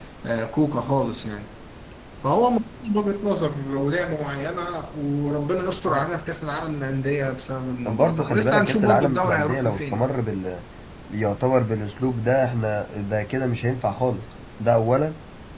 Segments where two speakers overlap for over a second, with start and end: 7.9-10.1

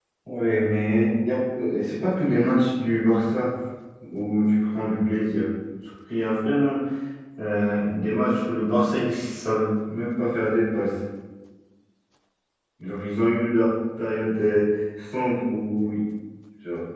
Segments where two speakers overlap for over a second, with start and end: none

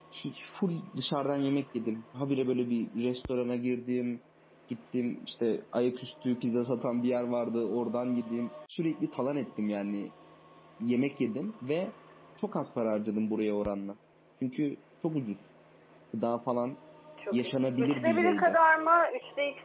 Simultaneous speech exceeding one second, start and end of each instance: 17.3-18.6

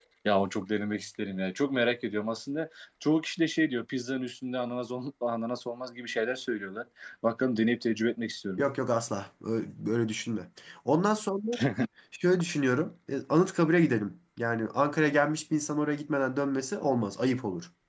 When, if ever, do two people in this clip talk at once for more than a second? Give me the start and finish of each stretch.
none

